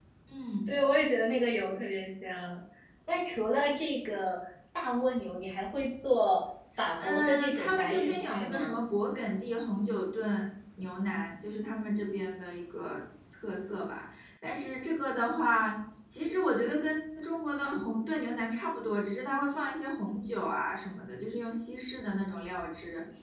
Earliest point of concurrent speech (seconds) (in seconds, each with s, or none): 7.0 s